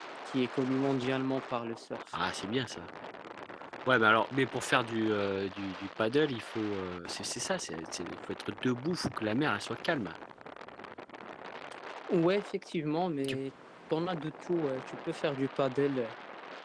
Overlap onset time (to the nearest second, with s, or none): none